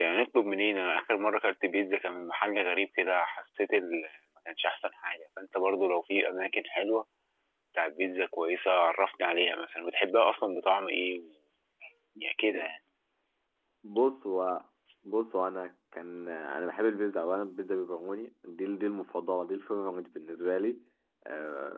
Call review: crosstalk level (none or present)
none